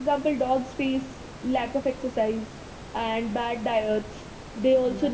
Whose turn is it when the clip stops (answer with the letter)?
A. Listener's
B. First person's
B